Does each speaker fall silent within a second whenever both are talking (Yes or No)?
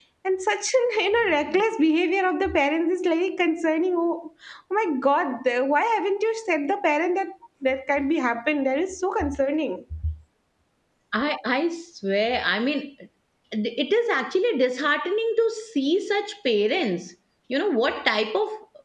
Yes